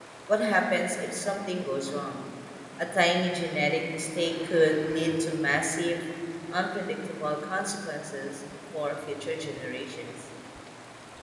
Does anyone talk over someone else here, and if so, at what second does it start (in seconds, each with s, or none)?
none